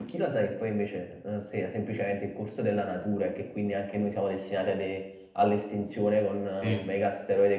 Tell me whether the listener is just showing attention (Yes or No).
Yes